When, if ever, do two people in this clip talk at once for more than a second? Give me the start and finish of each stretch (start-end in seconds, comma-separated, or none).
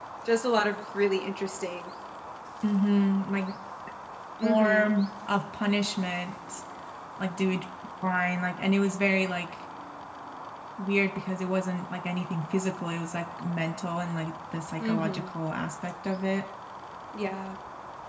none